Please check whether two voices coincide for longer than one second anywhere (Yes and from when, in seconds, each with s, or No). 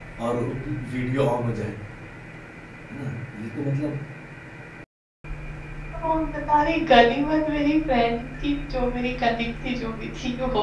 No